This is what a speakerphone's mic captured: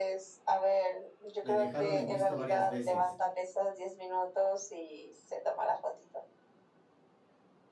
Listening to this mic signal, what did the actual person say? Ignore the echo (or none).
Le dejaron en visto varias veces.